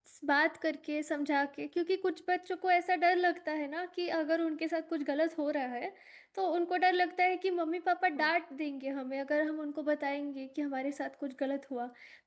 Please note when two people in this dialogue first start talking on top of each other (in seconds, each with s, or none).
none